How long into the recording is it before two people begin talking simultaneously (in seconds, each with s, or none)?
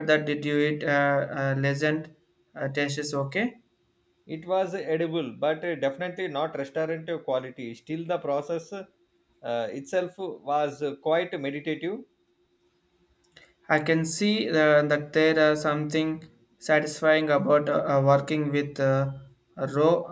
none